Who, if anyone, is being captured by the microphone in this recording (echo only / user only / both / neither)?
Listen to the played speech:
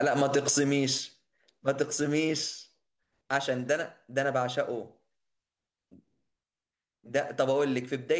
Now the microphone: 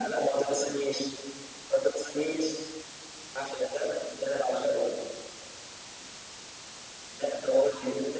echo only